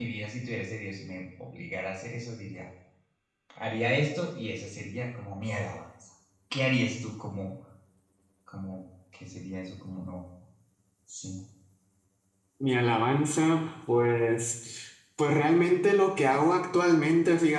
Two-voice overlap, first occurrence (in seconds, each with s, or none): none